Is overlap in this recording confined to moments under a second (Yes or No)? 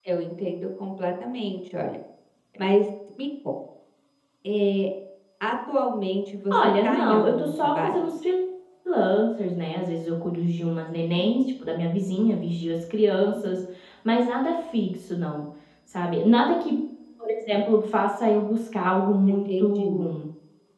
No